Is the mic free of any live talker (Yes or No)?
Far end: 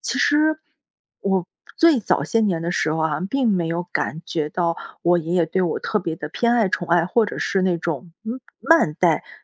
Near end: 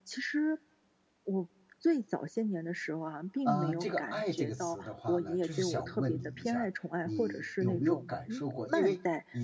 No